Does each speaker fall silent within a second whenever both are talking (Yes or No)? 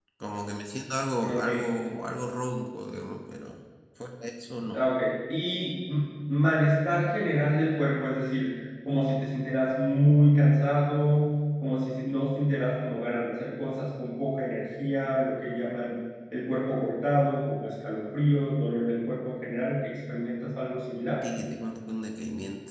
Yes